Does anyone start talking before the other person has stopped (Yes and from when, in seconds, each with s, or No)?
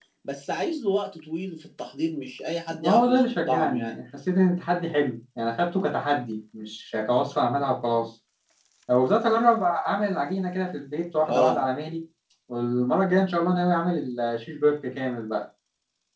Yes, from 2.7 s